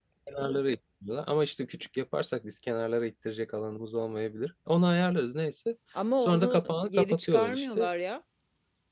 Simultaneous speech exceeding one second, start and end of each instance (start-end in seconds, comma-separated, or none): 6.2-7.9